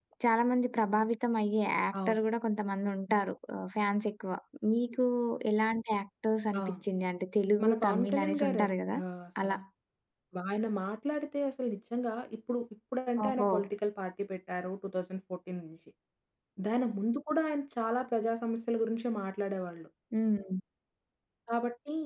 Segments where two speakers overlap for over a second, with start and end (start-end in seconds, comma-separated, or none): 7.6-9.0